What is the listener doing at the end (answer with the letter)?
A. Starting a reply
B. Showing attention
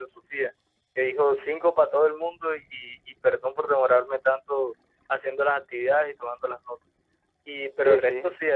B